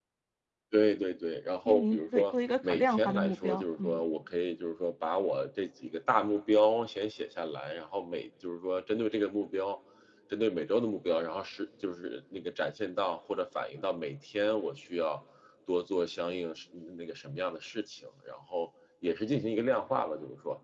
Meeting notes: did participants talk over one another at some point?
Yes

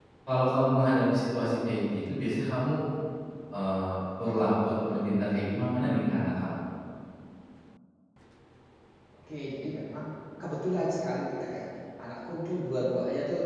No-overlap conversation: Yes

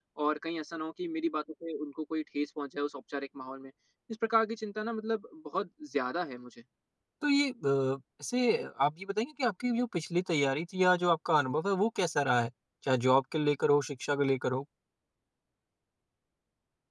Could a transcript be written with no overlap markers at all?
Yes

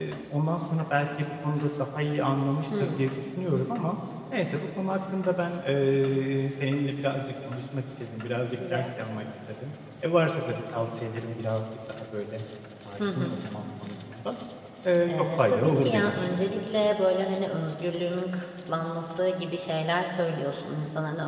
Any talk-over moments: Yes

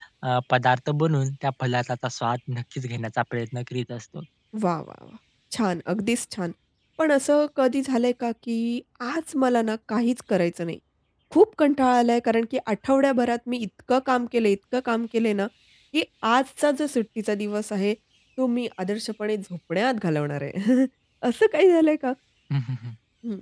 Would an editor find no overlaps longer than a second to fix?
Yes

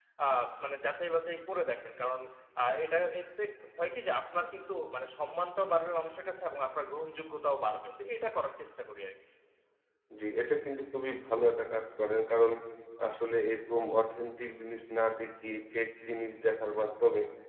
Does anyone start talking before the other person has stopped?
No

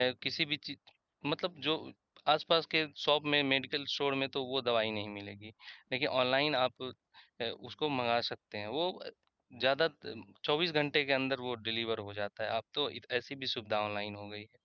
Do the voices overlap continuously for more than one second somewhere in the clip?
No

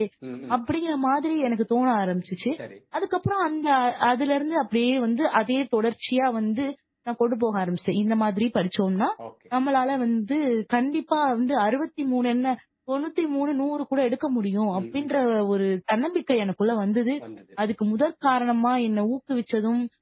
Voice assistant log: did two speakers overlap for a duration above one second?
No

